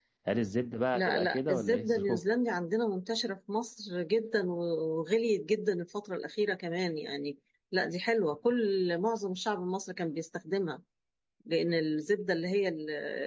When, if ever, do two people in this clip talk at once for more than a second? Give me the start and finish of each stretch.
0.9-2.2

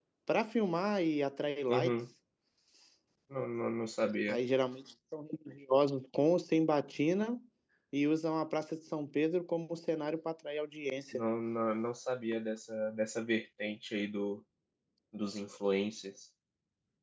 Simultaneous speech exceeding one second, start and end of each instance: none

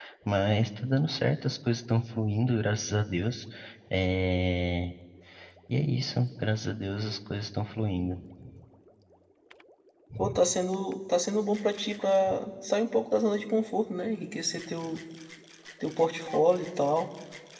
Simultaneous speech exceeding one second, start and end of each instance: none

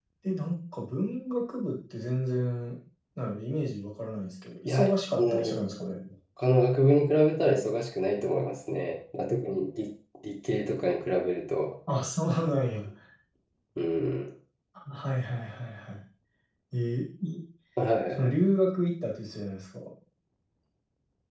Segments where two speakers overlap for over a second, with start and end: 4.7-6.0

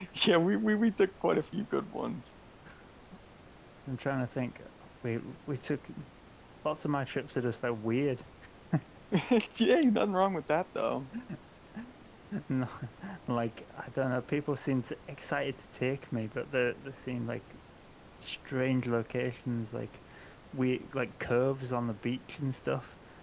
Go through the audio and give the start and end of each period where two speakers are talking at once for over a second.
none

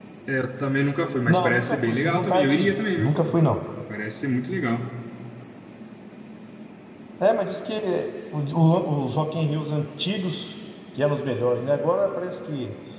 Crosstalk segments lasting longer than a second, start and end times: 1.3-3.1

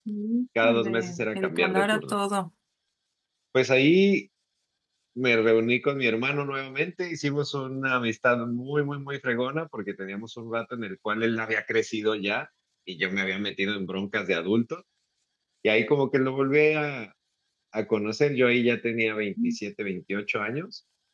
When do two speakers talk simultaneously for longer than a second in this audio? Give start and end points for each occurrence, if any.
0.6-2.1

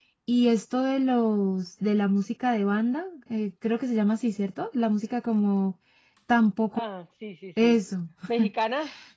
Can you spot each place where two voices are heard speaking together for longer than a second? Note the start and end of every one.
none

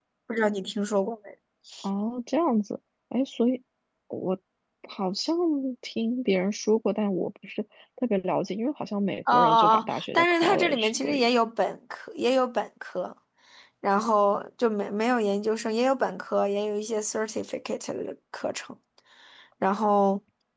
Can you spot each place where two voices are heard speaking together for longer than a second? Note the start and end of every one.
9.3-11.3

